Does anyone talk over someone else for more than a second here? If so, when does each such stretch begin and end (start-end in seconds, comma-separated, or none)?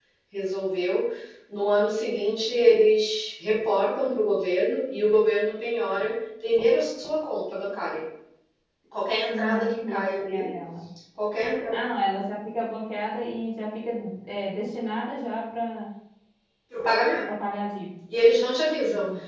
9.3-10.5